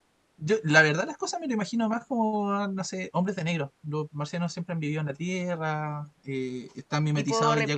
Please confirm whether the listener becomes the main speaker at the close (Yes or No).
No